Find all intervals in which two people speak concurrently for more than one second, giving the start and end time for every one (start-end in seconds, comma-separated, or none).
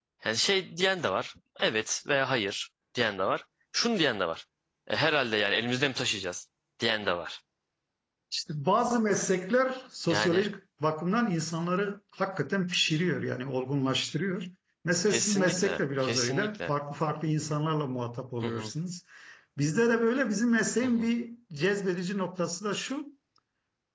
15.1-16.7